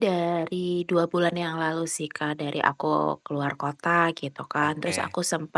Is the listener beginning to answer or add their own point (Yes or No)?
No